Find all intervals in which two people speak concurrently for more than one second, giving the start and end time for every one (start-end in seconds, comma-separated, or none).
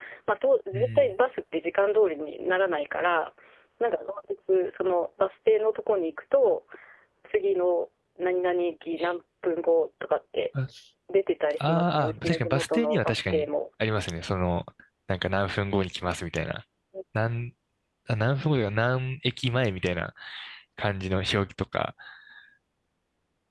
11.6-13.5